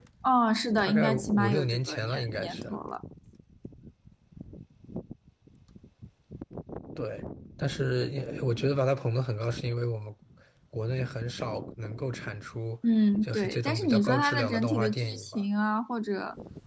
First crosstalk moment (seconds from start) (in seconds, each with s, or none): 0.8 s